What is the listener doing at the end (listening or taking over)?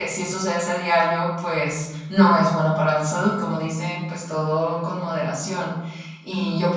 listening